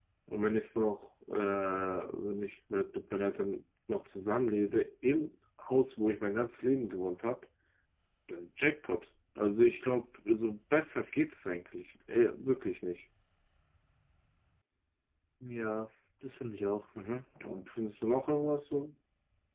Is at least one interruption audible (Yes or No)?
No